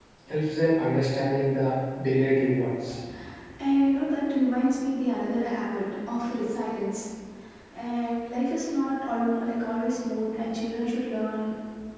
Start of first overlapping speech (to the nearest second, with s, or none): none